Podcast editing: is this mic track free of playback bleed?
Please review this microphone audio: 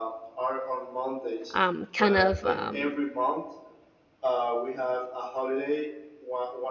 No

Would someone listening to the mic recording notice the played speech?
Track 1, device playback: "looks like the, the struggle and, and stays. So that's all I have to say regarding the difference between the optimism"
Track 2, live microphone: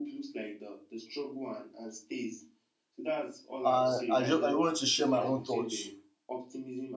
Yes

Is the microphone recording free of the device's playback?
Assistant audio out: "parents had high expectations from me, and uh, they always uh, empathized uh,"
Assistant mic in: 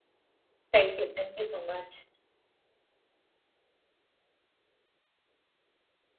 Yes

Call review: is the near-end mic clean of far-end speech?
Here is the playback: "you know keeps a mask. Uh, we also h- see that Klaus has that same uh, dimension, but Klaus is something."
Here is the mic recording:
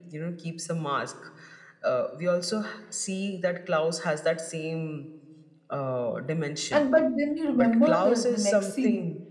No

